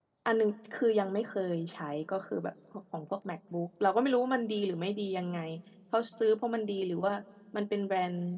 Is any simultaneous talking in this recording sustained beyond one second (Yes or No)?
No